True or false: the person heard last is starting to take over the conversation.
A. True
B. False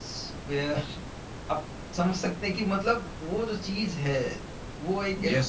A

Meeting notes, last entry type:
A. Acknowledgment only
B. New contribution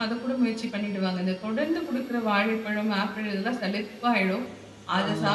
A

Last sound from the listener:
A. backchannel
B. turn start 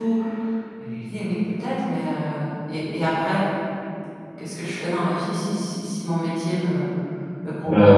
B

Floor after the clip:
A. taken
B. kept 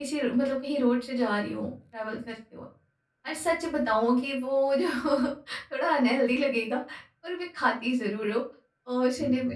B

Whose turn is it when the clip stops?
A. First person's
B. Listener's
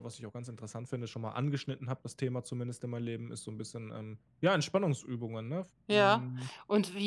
B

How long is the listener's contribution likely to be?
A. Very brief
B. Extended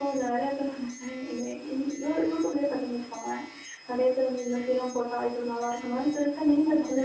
B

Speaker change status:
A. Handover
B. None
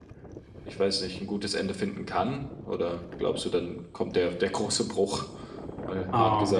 A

